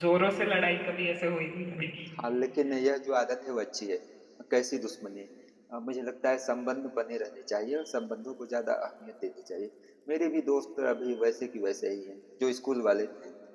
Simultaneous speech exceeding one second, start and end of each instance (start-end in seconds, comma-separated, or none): none